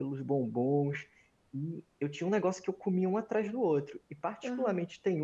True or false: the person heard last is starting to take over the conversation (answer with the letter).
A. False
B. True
A